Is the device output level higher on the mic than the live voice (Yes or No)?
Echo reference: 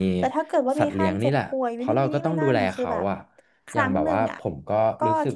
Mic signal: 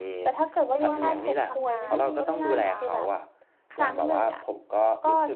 Yes